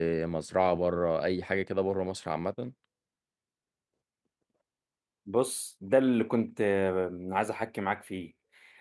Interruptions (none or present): none